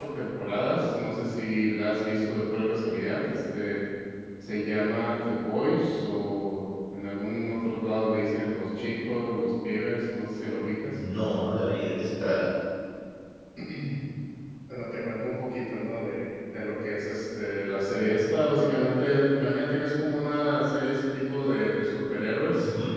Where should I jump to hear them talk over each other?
none

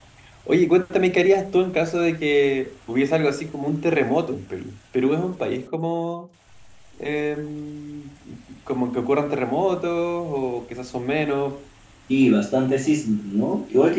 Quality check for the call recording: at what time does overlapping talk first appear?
none

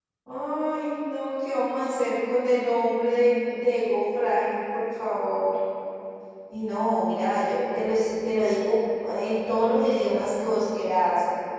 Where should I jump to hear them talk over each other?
none

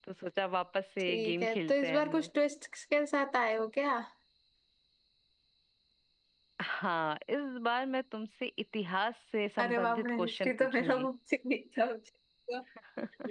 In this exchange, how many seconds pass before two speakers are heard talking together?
1.1 s

